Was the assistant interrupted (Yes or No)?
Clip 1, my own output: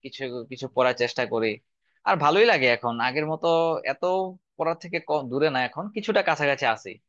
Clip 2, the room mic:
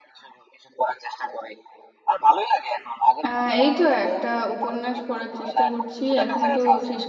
Yes